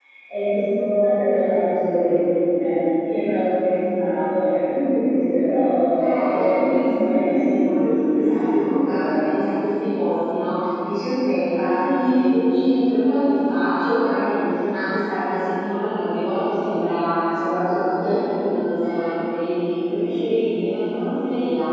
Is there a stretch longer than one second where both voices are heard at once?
Yes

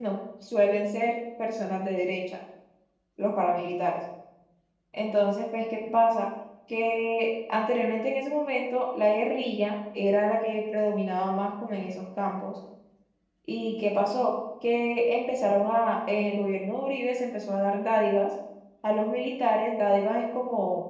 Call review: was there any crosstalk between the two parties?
No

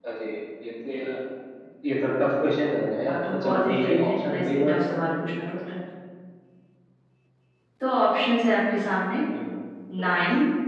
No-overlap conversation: No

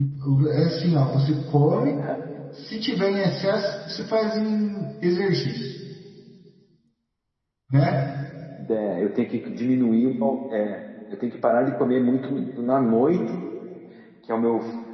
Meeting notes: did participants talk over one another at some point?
No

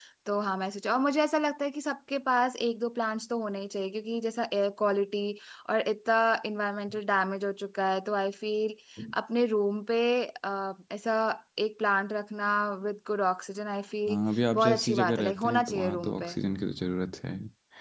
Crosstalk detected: Yes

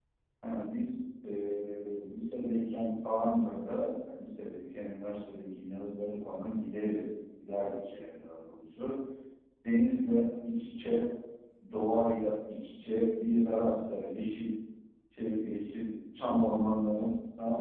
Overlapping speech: No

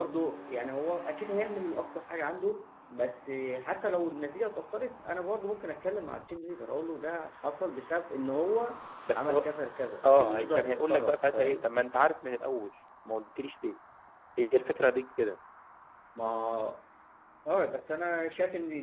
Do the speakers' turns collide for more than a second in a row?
Yes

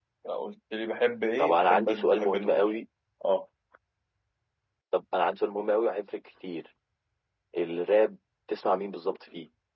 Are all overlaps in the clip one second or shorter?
No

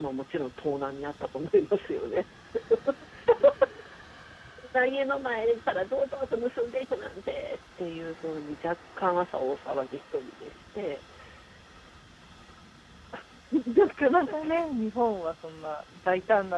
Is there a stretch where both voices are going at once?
No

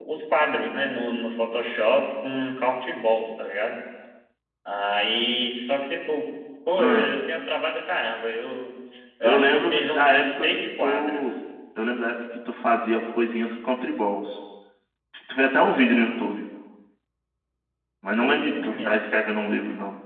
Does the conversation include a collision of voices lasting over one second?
Yes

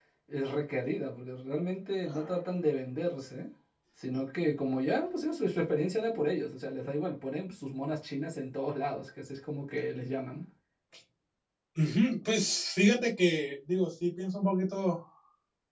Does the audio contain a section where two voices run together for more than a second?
No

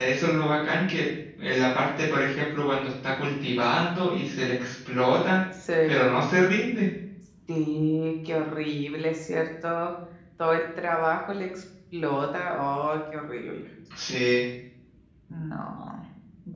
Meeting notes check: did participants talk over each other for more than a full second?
No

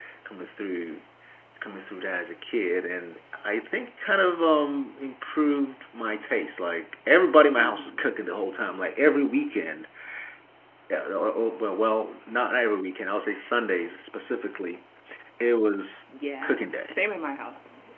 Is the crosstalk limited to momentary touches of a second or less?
Yes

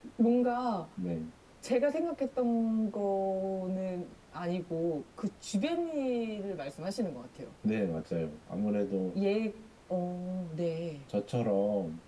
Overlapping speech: No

